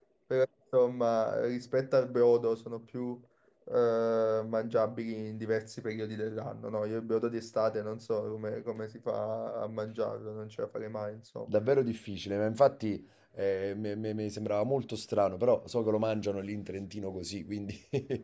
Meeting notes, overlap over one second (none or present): none